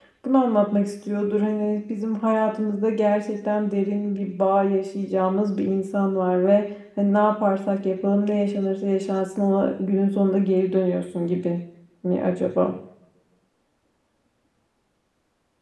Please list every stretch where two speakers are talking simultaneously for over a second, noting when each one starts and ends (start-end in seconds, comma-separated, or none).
none